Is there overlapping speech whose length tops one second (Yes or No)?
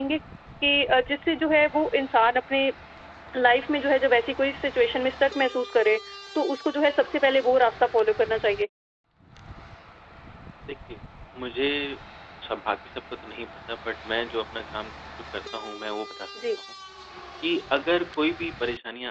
No